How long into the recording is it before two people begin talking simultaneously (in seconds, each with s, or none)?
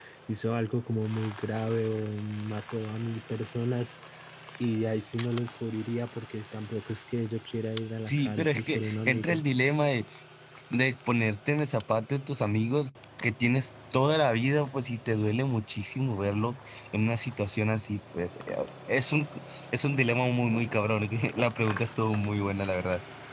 8.0 s